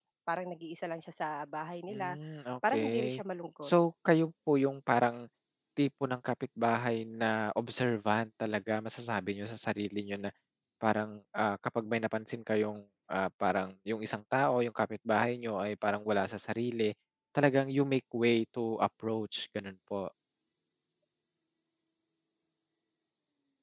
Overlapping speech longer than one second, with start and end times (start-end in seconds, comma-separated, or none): none